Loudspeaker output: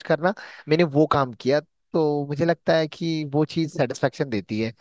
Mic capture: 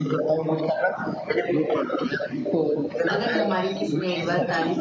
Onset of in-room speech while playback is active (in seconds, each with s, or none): 3.1 s